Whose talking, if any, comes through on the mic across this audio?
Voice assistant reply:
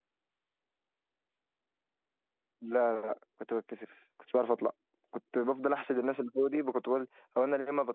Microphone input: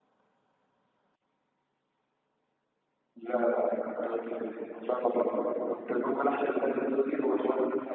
echo only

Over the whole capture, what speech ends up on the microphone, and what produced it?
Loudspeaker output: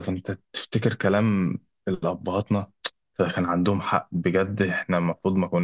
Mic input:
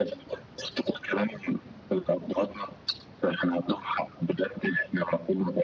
echo only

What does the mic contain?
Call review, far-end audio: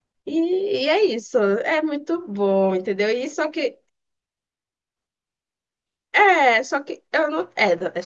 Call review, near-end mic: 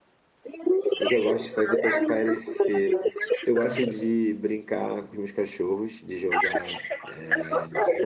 both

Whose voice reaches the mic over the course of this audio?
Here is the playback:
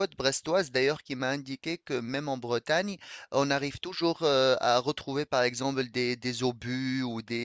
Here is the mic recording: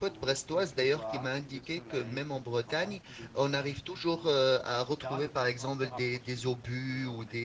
both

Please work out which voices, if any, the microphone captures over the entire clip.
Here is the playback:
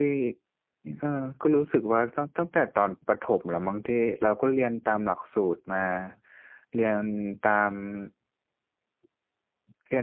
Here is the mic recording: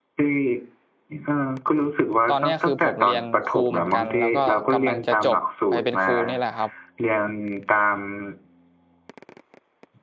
both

